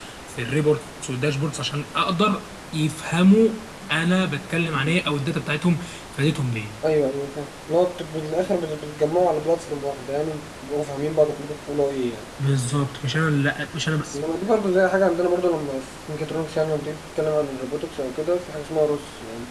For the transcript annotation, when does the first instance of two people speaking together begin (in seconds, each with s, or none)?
none